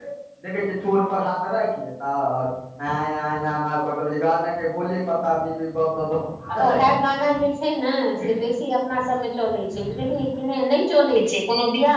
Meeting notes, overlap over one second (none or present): none